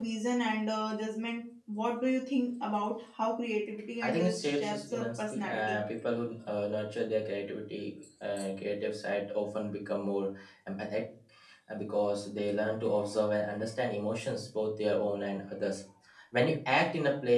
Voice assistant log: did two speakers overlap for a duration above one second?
Yes, from 4.0 s

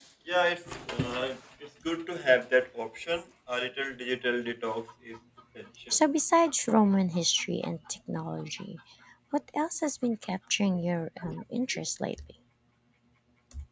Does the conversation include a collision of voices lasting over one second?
No

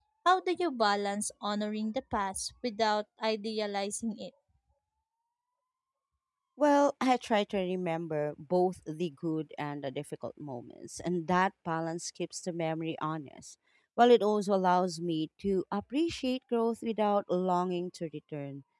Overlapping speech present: No

